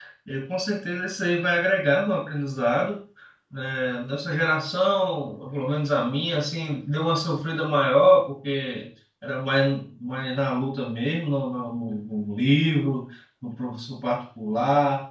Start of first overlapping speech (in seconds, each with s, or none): none